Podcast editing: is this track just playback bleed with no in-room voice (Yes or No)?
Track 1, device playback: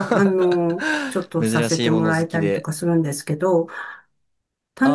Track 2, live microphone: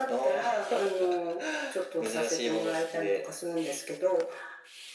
Yes